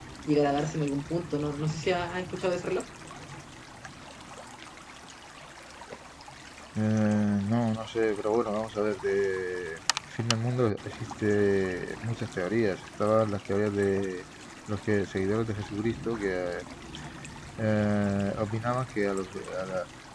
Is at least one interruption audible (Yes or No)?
No